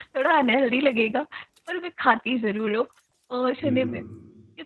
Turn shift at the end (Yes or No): No